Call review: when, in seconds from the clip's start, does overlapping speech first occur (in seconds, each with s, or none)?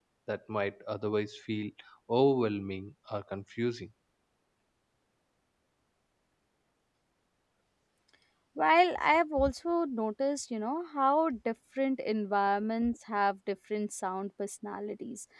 none